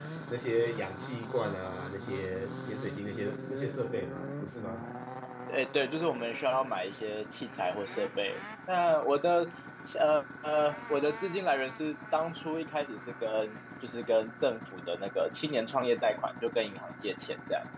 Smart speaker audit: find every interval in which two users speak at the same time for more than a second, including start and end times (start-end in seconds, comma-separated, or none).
none